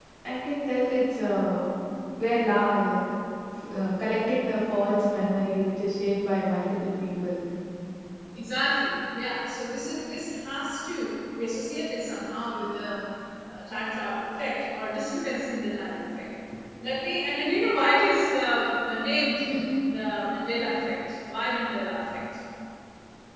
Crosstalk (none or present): none